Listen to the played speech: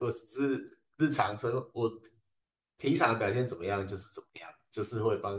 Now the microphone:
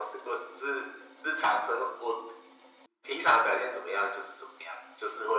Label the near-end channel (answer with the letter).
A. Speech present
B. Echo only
A